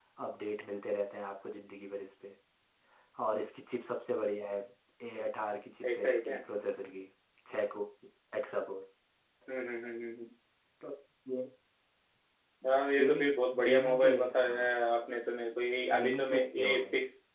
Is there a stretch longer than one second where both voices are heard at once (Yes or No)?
Yes